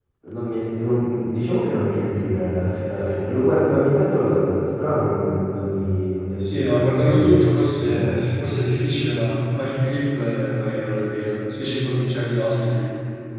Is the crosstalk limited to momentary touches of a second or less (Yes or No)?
No